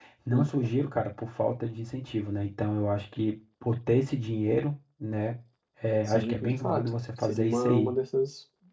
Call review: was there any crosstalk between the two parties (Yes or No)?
Yes